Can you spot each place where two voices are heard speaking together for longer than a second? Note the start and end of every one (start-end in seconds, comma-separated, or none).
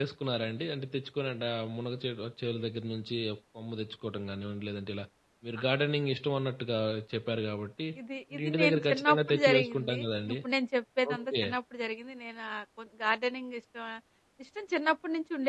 8.3-10.4